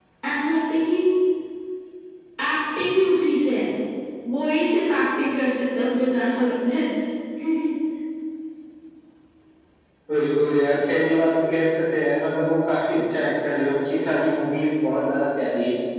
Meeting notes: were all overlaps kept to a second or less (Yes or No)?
Yes